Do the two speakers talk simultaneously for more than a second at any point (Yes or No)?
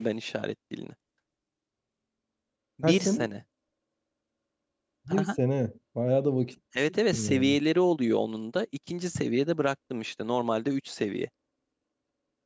No